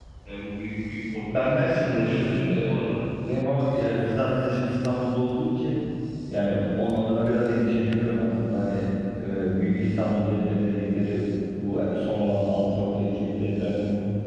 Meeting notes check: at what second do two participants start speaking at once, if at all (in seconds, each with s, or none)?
1.3 s